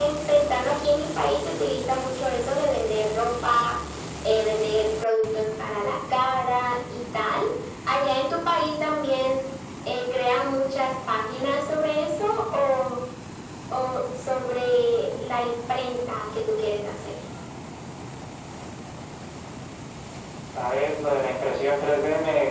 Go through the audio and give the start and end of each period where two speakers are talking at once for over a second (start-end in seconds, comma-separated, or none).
none